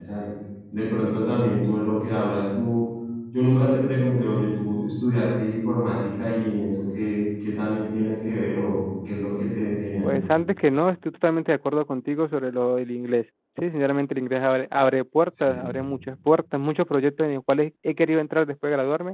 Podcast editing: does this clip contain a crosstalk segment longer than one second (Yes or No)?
No